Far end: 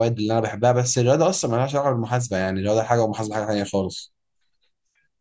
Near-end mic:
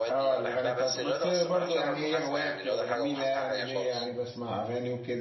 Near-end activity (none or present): present